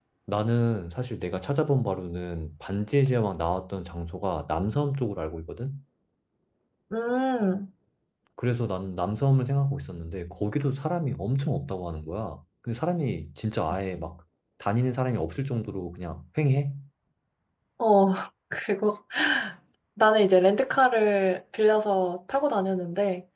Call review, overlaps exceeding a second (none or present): none